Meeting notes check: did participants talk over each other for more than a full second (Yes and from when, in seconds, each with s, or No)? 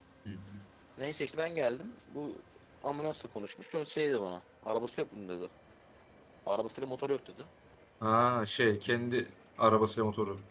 No